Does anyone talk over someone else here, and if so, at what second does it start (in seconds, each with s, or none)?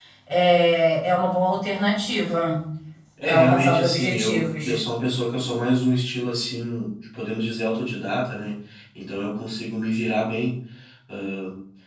3.3 s